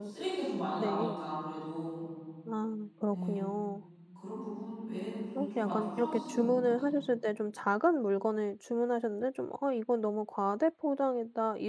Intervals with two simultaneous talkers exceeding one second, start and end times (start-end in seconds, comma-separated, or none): 5.4-6.7